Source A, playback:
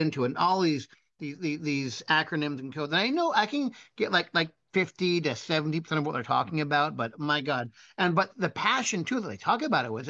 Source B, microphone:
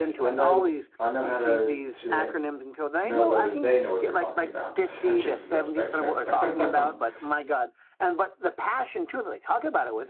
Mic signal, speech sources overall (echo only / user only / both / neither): both